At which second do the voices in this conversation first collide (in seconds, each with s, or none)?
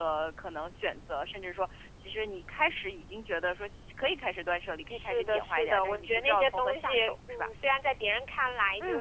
4.9 s